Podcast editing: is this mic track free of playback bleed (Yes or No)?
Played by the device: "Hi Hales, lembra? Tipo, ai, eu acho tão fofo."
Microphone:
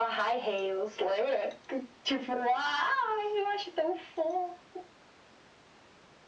No